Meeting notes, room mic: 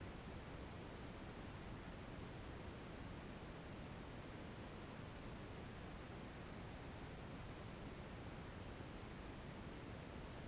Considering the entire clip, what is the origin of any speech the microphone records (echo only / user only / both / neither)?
neither